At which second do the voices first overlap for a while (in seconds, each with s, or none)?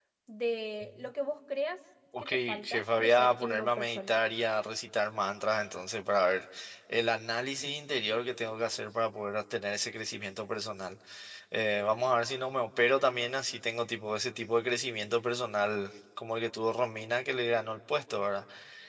2.1 s